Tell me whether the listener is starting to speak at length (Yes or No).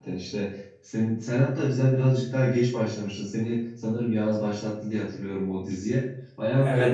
No